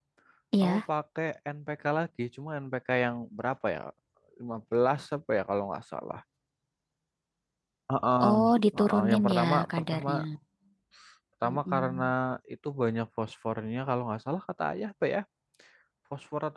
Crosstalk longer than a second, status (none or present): present